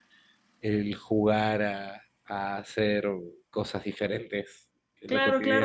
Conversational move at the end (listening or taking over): taking over